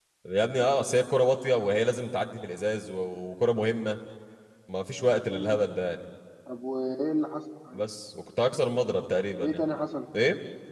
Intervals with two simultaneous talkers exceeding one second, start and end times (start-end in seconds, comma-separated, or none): none